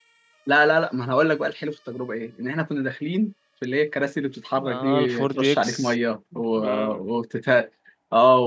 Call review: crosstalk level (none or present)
present